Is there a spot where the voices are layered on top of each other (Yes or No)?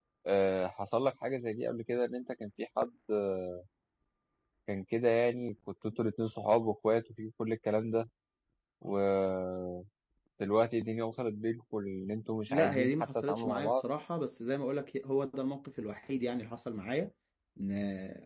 Yes